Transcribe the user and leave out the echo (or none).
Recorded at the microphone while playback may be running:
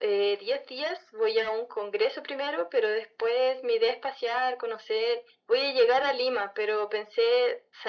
none